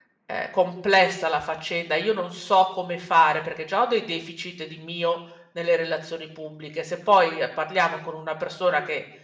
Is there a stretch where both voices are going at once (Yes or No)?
No